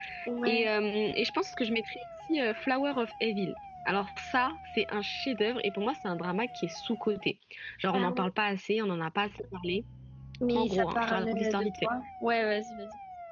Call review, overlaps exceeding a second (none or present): present